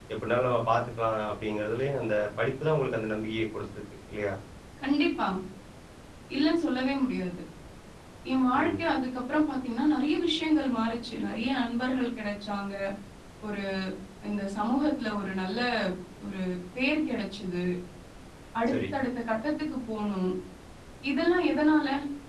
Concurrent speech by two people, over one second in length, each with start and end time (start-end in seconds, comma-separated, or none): none